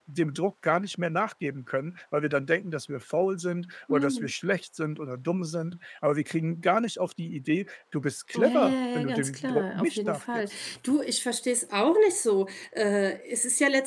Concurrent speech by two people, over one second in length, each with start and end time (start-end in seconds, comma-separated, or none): 8.4-10.5